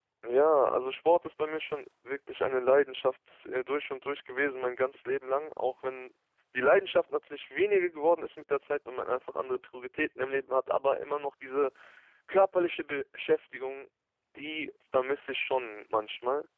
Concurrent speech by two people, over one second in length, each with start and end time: none

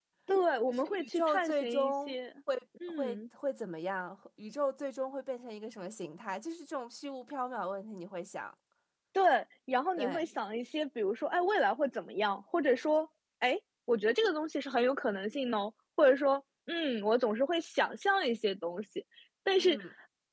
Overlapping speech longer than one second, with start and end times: 0.7-2.2

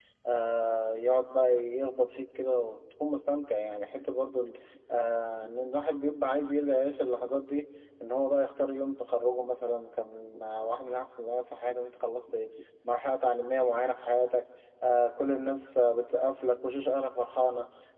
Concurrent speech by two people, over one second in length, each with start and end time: none

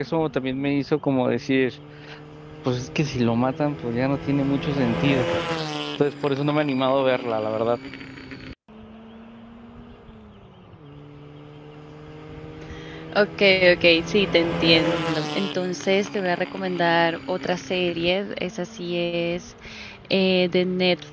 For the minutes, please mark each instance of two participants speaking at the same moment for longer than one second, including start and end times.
none

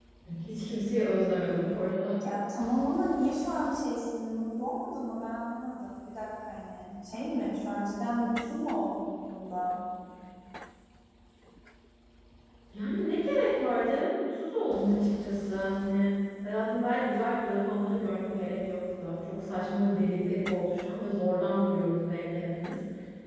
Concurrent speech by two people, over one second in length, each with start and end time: none

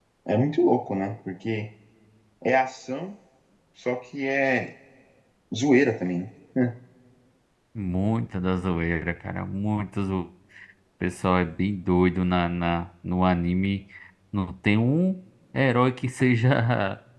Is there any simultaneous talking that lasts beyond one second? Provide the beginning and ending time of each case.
none

